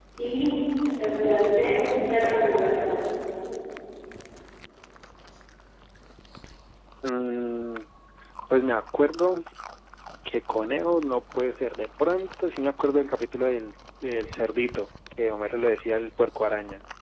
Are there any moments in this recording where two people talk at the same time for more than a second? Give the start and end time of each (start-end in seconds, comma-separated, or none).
none